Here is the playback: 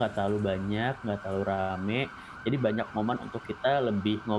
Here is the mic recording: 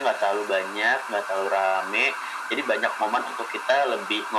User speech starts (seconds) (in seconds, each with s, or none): none